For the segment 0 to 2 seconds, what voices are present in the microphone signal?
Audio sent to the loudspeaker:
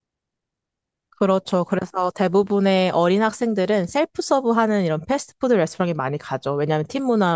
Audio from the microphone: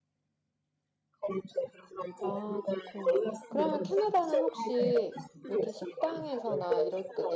echo only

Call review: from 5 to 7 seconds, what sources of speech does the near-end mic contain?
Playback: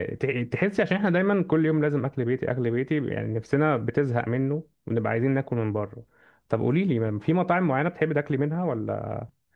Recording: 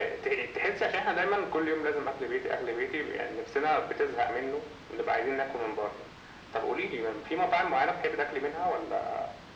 echo only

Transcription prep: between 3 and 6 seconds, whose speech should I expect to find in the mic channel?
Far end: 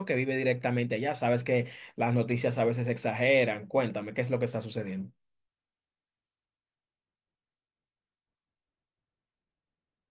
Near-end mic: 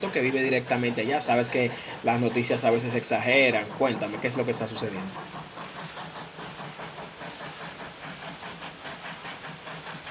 echo only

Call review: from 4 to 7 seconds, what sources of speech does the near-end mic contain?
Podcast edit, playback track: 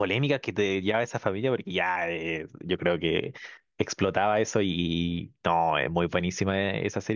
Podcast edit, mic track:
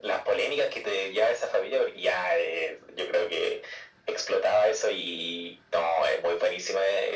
echo only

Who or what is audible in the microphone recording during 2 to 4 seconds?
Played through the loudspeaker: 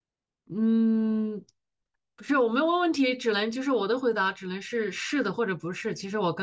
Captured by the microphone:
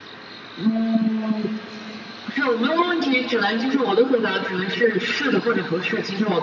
echo only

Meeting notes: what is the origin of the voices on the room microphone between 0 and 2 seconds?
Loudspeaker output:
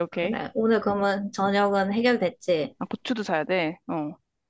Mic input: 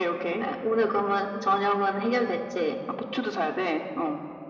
echo only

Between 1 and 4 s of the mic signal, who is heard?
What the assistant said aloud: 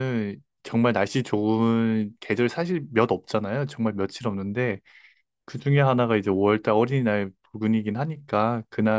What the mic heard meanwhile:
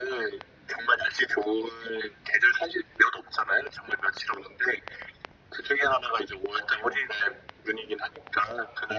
echo only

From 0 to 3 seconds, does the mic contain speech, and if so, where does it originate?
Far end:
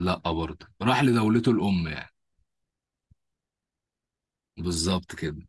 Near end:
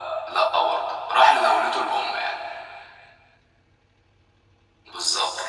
echo only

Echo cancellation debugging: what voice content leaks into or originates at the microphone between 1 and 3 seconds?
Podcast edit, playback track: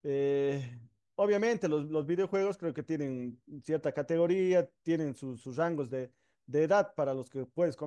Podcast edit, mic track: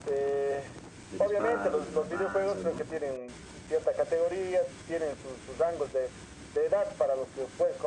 both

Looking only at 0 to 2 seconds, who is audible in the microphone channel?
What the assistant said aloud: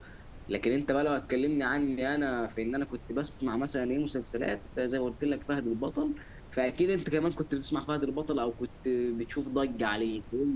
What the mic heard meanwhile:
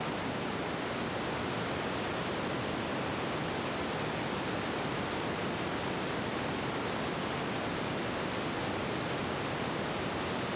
neither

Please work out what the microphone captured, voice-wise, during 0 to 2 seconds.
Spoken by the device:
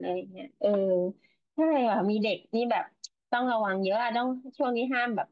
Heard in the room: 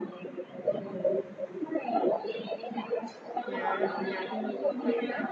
echo only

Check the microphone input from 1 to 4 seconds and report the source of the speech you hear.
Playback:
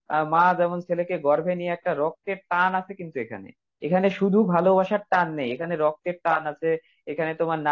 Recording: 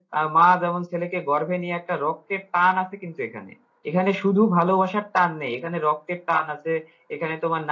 echo only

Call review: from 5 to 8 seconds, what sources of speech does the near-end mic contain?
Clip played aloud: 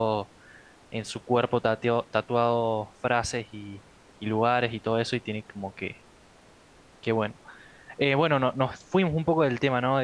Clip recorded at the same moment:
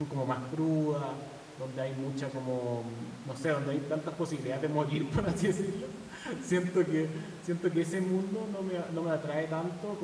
user only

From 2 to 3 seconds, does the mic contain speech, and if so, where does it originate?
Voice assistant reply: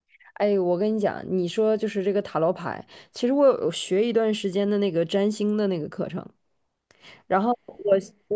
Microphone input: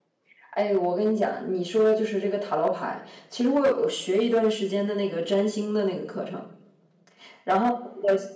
echo only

